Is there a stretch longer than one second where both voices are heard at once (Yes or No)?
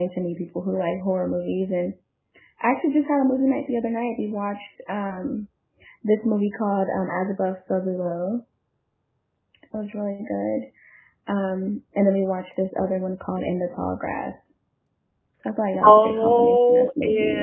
Yes